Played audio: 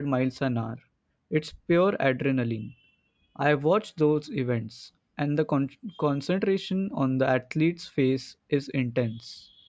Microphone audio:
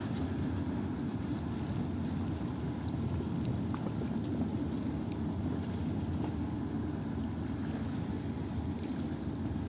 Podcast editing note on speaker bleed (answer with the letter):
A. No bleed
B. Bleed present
A